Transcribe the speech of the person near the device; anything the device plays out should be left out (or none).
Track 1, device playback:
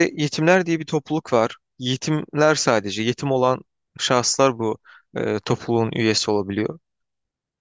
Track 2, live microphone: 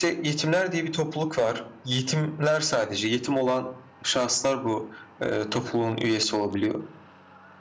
none